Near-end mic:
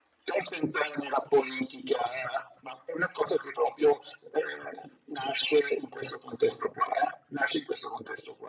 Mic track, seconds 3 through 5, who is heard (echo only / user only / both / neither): echo only